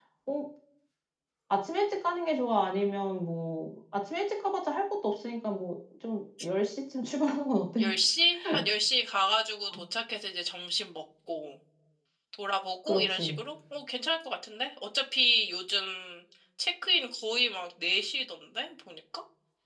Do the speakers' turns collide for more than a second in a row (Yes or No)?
No